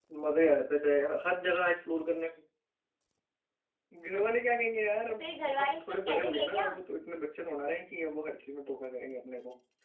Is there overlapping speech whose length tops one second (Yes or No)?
Yes